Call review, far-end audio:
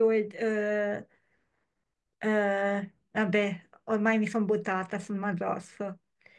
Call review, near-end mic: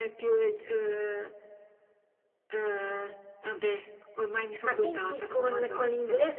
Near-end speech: present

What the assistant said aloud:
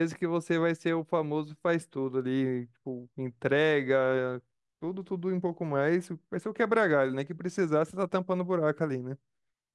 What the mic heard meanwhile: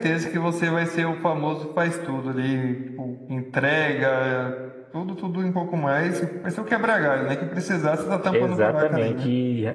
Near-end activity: present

